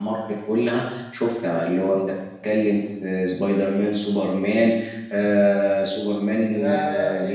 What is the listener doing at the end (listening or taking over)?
taking over